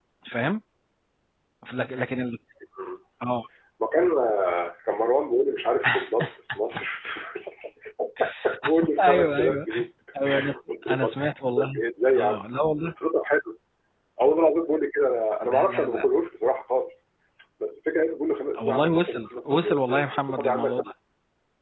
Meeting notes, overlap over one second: present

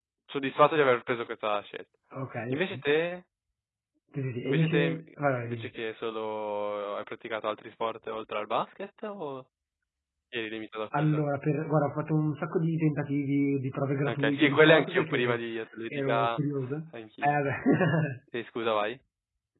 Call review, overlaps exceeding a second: present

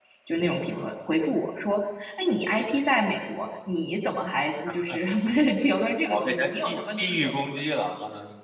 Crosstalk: present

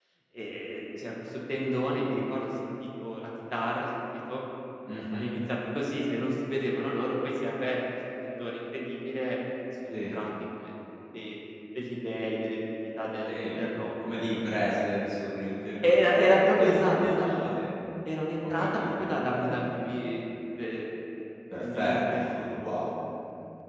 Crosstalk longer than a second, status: present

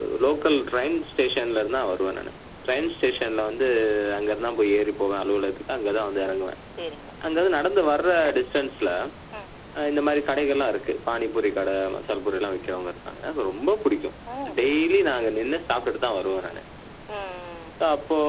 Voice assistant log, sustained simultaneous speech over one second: none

